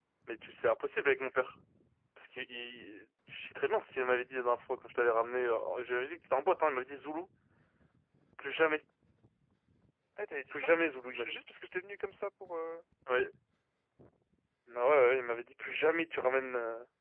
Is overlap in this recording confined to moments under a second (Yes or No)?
Yes